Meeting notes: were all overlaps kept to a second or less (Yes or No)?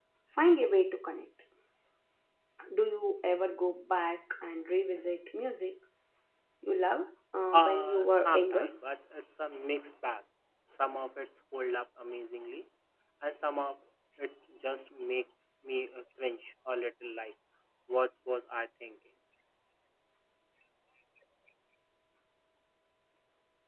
No